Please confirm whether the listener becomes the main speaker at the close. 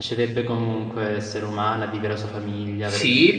Yes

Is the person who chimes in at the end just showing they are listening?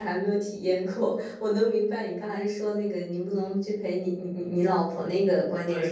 No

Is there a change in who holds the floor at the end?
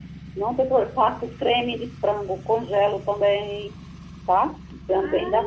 No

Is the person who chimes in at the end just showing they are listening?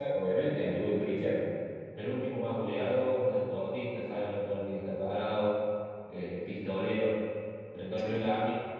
Yes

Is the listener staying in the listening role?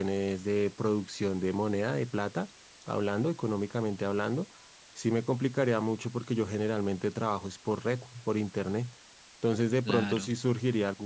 Yes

